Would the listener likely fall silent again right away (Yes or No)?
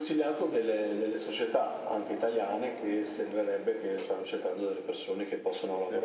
Yes